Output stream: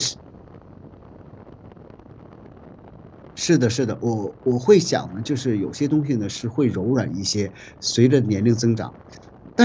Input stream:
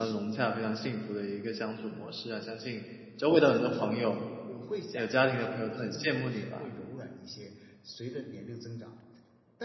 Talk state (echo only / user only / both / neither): both